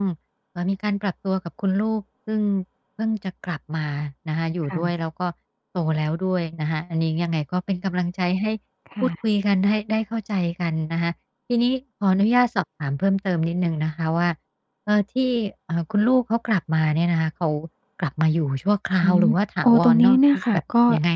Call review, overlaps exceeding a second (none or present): none